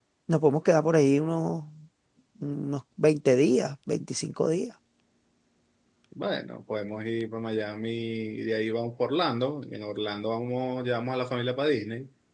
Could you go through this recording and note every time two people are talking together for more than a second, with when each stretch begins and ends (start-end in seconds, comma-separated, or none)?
none